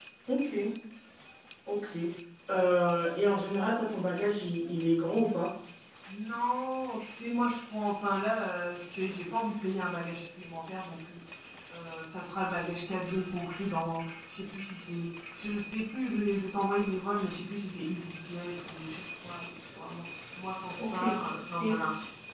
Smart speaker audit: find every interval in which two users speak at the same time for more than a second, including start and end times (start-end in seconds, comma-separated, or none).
none